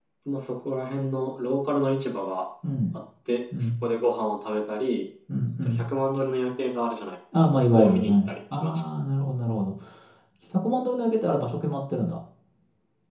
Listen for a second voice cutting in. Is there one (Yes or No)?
Yes